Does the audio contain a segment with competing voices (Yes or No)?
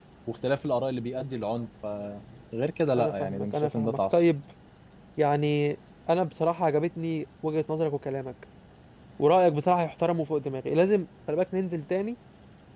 Yes